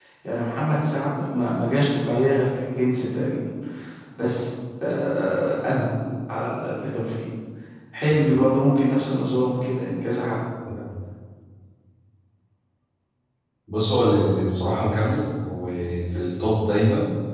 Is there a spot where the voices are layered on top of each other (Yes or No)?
No